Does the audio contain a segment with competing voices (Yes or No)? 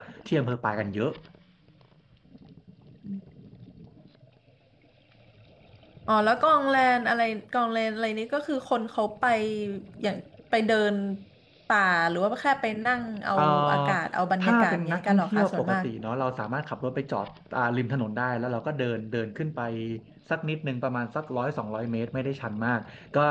Yes